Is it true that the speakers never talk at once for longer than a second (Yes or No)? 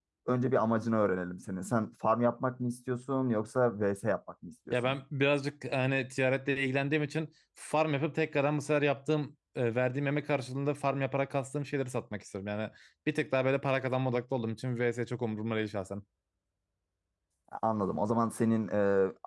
Yes